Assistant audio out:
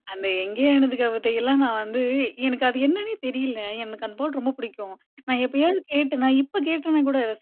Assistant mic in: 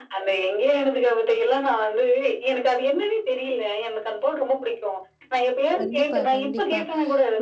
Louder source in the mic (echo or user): echo